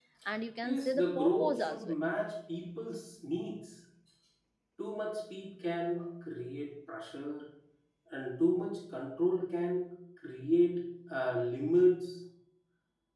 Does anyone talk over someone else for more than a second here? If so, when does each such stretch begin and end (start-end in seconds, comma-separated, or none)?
0.6-1.9